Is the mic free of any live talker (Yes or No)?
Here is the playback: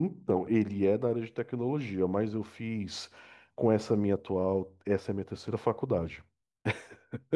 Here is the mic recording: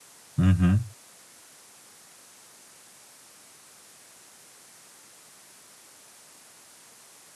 No